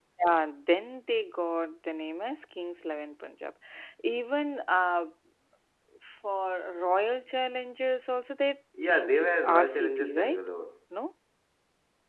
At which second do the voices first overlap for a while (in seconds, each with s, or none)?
8.7 s